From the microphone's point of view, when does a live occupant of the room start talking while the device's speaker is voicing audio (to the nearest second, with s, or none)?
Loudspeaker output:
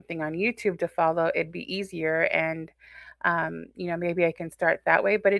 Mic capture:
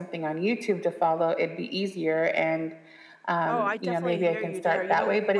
3 s